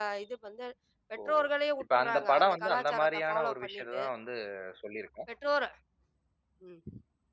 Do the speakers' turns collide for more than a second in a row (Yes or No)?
Yes